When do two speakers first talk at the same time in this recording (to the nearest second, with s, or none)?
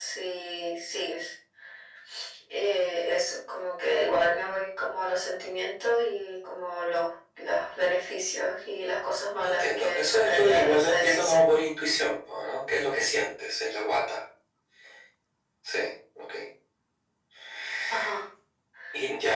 9 s